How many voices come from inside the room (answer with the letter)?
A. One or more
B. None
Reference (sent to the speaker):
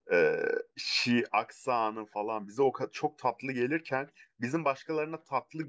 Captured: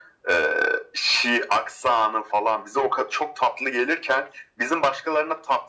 B